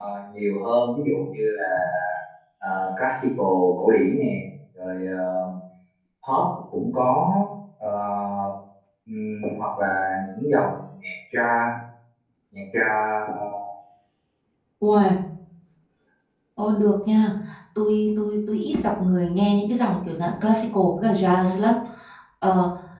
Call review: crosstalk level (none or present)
none